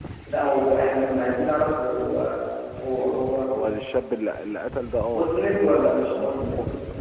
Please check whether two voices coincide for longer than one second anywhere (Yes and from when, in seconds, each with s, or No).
Yes, from 5.1 s